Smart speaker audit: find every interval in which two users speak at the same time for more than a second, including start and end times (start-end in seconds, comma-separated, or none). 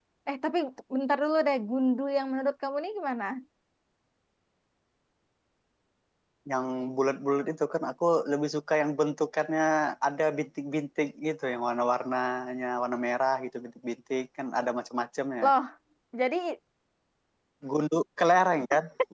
none